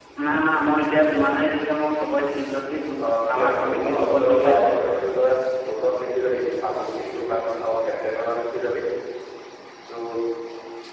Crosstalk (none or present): present